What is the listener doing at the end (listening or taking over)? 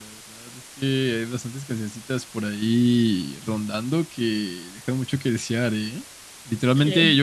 listening